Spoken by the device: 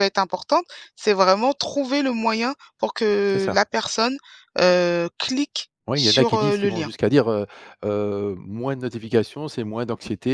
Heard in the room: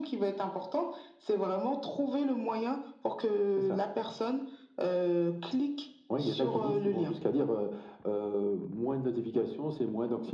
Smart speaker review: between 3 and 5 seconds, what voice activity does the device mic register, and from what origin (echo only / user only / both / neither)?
echo only